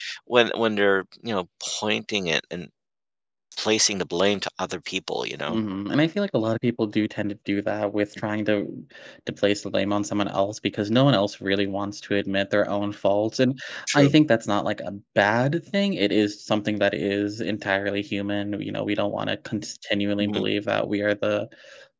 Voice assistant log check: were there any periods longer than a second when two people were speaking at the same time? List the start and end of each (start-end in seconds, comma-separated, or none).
none